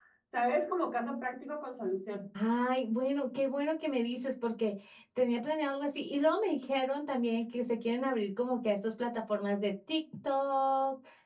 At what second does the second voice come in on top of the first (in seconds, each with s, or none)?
none